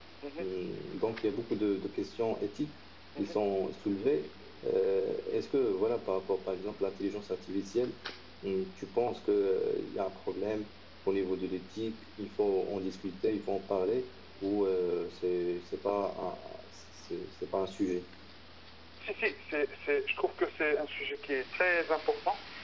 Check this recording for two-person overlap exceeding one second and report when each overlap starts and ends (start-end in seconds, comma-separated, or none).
none